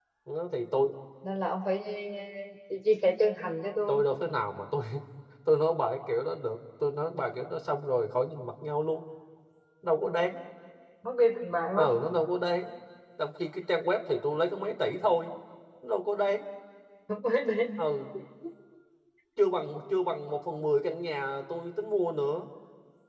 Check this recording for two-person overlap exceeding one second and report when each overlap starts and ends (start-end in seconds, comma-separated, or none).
none